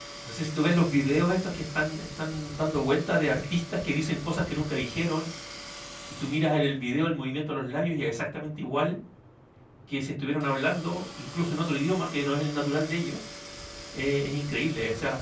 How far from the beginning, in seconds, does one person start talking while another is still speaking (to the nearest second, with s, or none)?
none